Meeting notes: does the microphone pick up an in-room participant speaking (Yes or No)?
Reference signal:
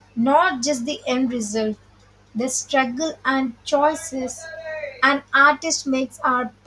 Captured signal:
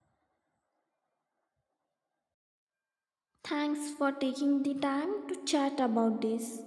Yes